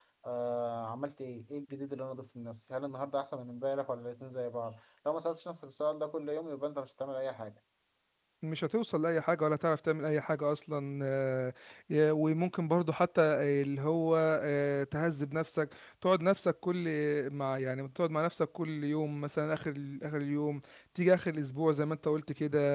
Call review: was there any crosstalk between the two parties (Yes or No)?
No